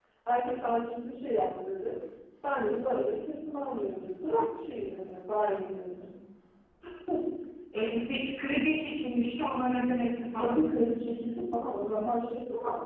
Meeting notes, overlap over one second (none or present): none